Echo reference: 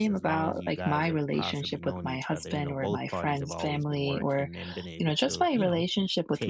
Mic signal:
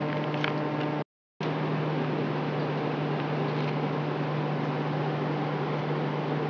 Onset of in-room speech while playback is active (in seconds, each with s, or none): none